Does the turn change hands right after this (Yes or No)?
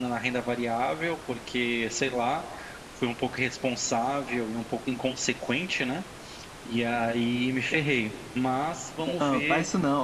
Yes